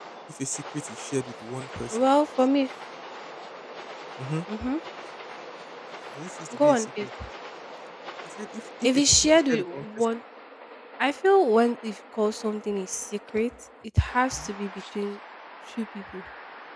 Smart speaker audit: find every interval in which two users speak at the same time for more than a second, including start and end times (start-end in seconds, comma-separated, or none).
8.8-10.1